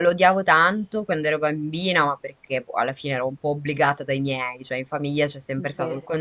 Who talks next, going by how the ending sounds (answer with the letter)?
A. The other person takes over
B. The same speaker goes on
B